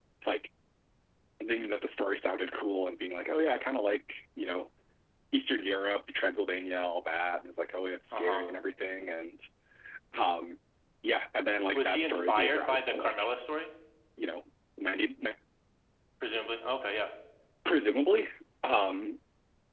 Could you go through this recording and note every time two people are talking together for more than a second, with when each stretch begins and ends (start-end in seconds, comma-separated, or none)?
11.7-13.3